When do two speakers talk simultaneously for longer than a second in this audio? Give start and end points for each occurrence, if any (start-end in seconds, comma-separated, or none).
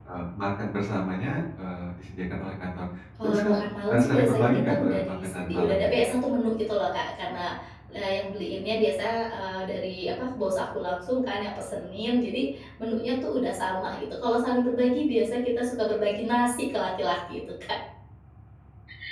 3.9-5.9